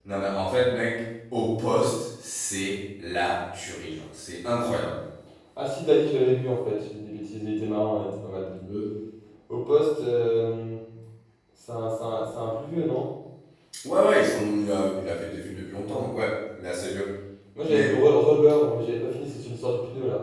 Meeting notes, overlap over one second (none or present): none